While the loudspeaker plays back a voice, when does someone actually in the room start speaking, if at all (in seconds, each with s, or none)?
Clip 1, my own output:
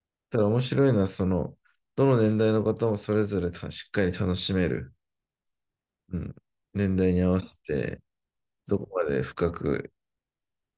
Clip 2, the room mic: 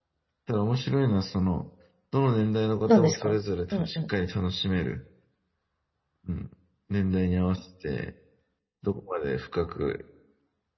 2.9 s